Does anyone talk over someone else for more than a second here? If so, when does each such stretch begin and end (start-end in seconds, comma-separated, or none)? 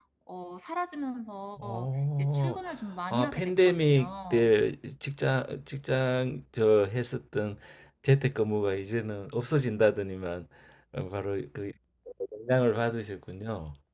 3.1-4.5